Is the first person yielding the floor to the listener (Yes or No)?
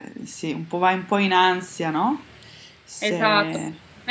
Yes